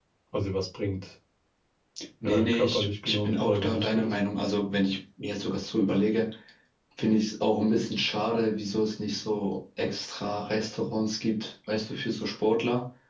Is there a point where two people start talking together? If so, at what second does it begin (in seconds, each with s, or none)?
2.2 s